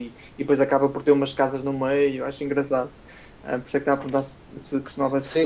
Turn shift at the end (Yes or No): Yes